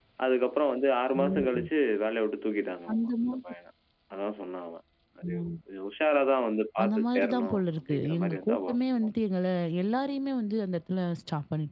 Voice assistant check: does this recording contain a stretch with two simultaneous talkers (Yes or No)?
Yes